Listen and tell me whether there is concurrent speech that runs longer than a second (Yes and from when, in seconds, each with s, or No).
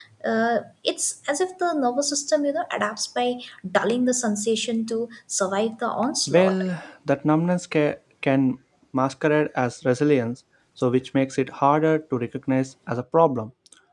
No